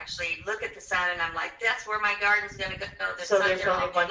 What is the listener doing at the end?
taking over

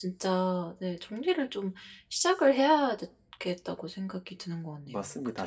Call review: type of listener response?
taking over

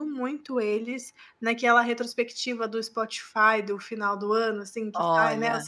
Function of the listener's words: listening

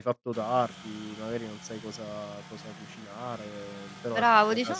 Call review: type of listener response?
taking over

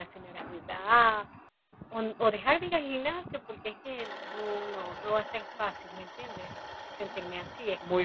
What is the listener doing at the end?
taking over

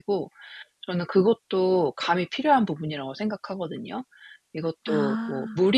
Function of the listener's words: listening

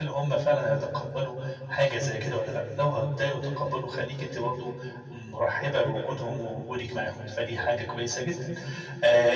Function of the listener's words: listening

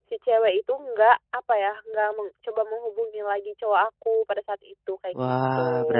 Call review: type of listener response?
taking over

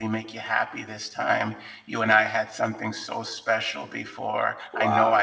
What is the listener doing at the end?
listening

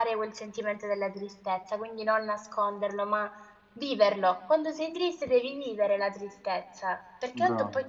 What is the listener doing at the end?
listening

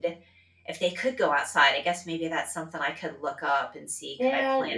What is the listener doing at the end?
taking over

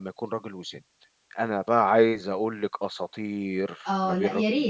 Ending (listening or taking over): taking over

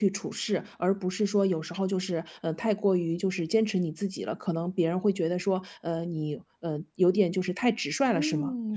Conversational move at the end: taking over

